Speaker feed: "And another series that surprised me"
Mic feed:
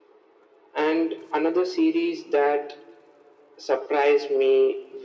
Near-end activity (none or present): none